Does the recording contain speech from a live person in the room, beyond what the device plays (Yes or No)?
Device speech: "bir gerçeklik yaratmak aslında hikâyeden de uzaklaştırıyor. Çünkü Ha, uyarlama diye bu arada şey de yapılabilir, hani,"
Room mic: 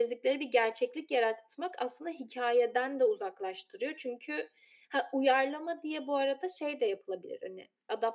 No